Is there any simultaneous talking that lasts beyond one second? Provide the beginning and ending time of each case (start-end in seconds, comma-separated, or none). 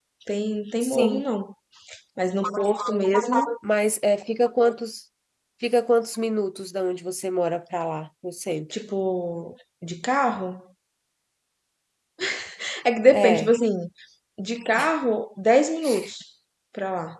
none